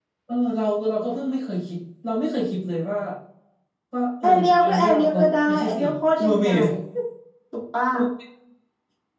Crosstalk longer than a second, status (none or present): present